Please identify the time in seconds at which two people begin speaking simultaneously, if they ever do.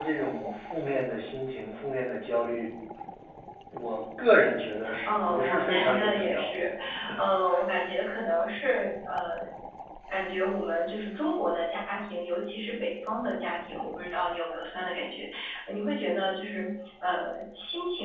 4.9 s

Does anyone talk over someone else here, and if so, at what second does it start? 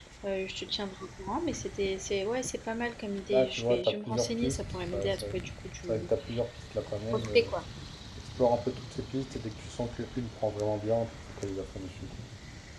3.3 s

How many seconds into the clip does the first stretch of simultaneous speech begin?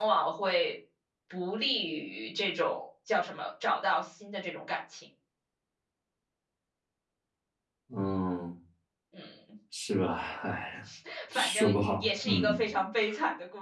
11.3 s

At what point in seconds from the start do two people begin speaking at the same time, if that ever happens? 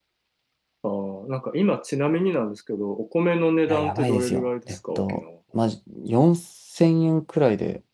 3.7 s

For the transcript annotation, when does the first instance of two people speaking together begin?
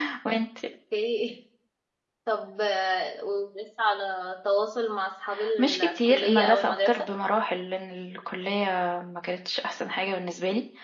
5.6 s

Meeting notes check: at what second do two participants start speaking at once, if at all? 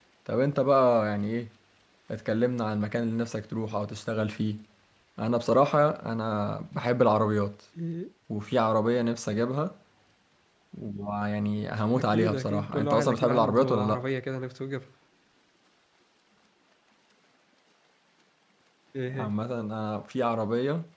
11.9 s

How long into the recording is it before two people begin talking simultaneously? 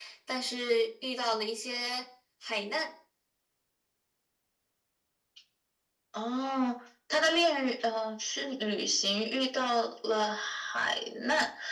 none

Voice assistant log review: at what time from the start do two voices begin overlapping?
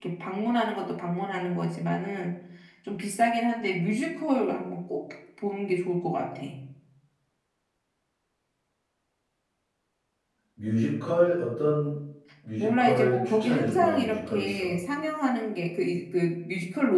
12.6 s

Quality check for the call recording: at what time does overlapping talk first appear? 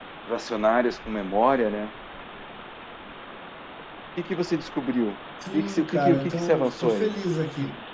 5.4 s

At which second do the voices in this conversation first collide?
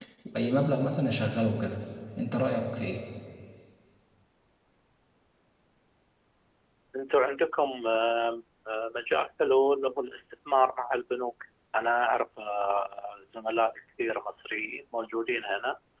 none

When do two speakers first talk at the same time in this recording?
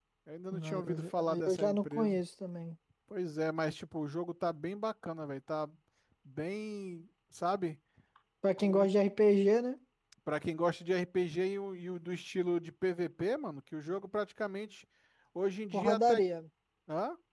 0.6 s

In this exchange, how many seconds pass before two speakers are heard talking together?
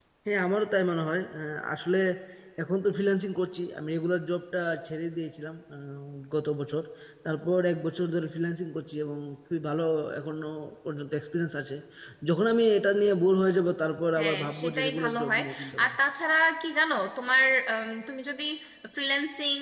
14.2 s

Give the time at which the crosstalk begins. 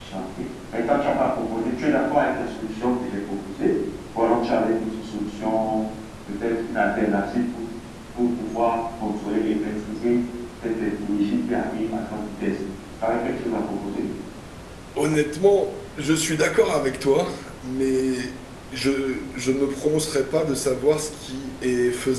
none

